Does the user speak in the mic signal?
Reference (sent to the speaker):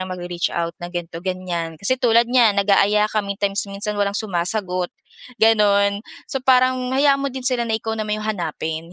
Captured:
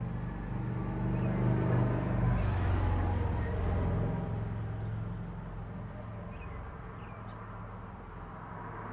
No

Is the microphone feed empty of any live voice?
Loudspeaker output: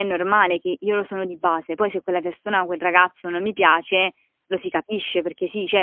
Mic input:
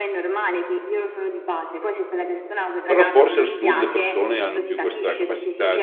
No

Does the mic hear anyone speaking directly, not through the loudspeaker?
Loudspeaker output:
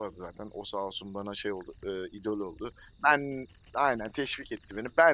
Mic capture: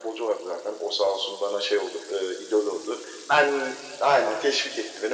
No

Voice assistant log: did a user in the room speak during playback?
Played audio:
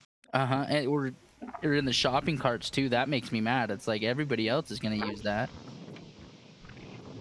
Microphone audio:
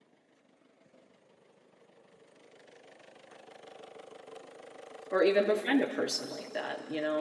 Yes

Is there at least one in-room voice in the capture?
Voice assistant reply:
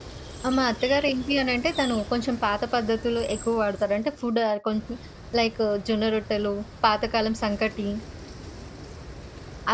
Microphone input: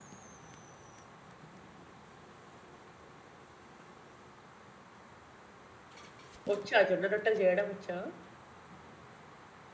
Yes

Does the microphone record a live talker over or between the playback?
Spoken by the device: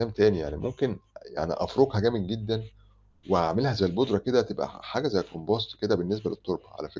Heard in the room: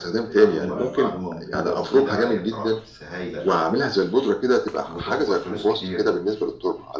Yes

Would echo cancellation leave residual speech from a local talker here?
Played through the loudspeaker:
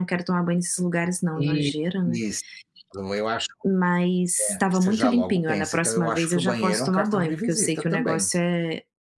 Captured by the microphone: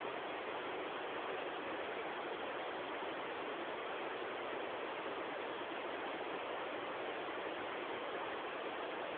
No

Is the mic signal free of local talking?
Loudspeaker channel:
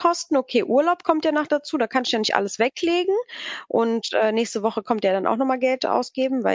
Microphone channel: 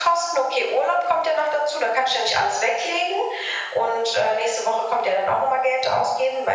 Yes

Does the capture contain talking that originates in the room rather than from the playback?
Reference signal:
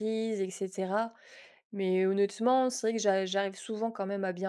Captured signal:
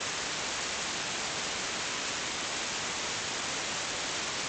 No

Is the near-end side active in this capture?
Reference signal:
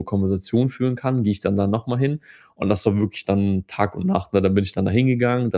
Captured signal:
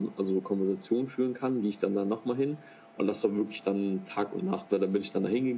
No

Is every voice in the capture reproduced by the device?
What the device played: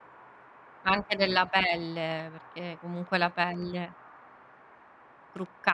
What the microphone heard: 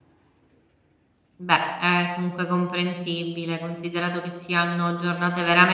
No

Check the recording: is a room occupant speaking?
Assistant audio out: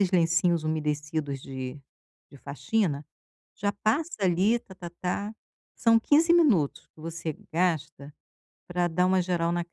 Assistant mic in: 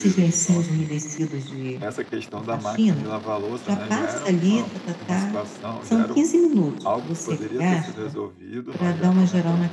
Yes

